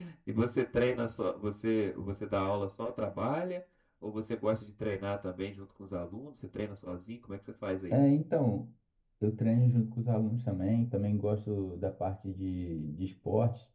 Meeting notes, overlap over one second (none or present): none